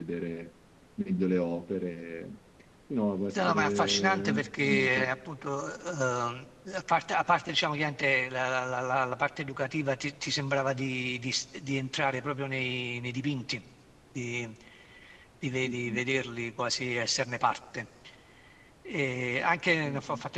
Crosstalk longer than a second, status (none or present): present